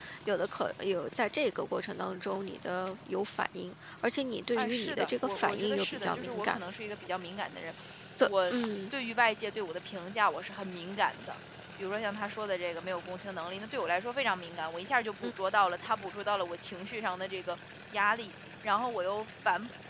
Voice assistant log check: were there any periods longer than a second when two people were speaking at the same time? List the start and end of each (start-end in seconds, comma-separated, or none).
4.5-6.6